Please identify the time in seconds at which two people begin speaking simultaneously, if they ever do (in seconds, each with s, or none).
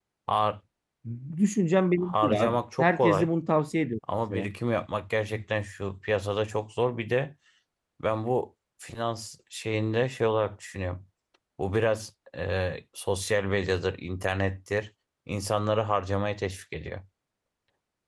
2.0 s